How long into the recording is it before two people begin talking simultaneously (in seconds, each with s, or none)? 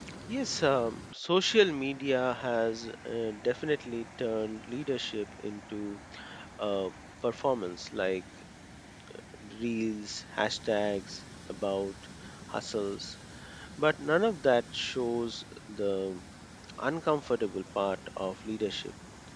none